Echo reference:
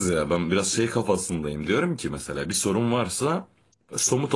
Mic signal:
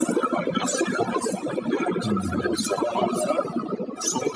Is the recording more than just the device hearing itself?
Yes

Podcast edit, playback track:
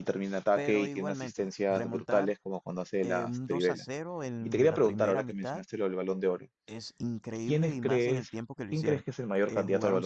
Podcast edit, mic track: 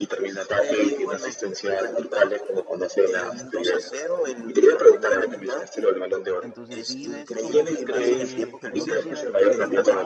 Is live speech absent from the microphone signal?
No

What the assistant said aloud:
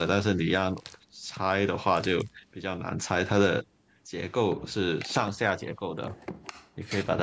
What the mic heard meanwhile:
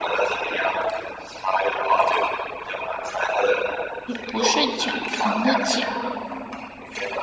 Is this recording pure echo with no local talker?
No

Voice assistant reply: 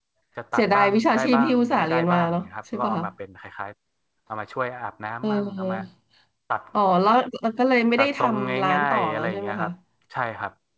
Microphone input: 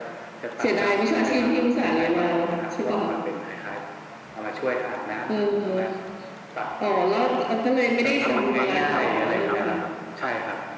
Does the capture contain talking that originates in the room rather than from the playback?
Yes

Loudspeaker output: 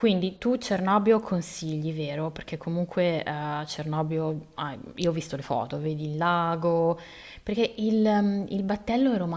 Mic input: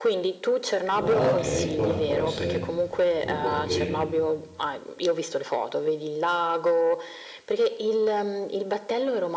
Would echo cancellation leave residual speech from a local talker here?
Yes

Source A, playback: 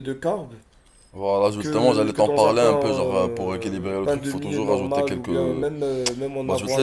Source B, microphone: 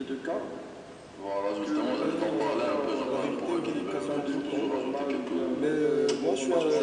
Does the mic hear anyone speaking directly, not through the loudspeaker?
Yes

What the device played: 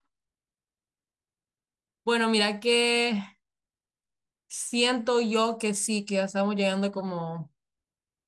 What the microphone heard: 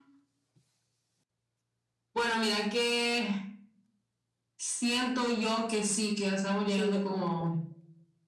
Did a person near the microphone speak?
Yes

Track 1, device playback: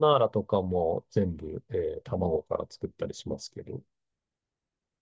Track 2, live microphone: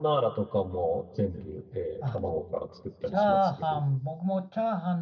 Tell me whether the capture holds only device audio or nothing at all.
No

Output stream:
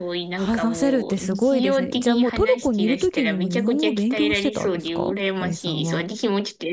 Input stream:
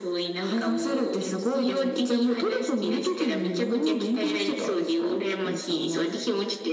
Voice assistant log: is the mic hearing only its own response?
Yes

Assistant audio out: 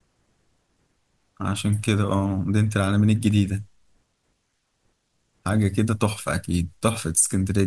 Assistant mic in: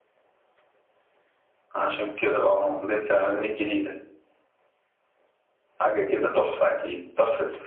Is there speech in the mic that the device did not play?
No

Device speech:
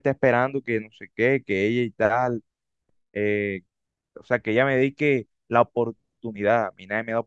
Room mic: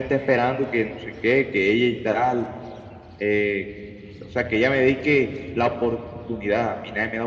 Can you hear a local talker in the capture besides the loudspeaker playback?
No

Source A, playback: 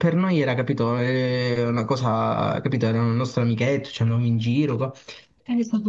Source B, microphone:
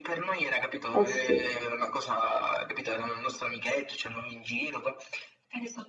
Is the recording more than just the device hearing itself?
Yes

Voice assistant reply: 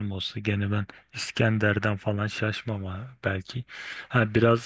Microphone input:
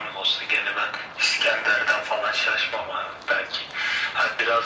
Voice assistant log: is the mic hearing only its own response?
Yes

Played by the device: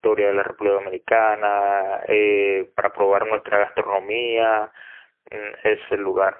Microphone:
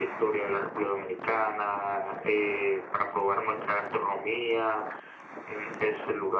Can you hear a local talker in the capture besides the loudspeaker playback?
No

